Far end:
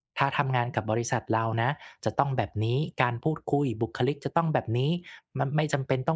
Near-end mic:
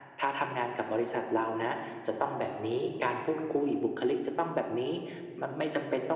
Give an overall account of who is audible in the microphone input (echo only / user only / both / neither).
echo only